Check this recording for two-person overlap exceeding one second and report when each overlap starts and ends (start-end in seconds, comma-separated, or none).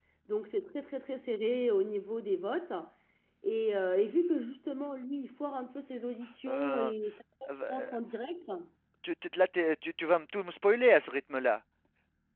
none